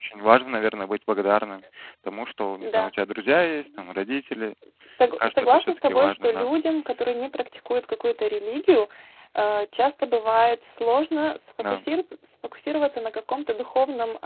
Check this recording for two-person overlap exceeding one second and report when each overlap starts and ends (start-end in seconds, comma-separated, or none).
5.2-6.5